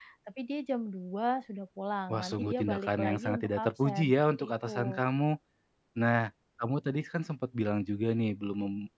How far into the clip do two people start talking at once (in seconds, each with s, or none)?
2.1 s